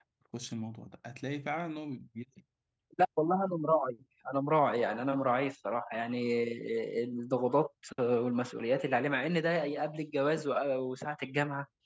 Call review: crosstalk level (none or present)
none